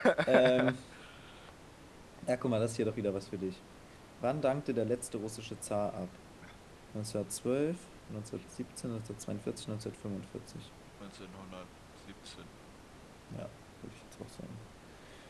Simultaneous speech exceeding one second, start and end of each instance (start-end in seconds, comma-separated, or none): none